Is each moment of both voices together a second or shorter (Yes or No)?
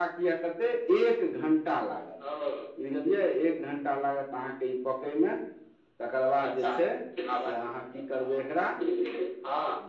Yes